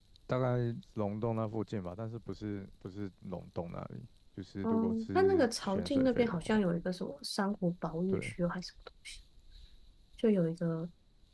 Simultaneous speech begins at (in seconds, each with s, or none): 4.6 s